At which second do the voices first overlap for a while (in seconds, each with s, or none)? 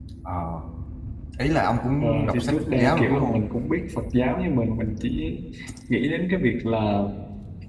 2.0 s